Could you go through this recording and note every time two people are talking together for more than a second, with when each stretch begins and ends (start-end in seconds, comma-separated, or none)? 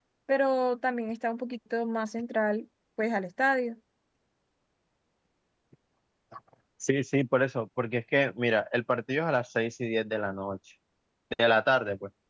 none